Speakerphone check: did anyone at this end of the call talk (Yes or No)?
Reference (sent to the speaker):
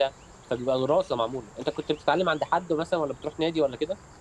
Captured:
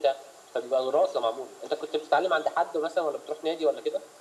No